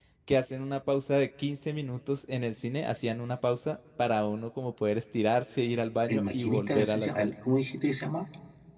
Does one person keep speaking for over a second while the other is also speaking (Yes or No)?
Yes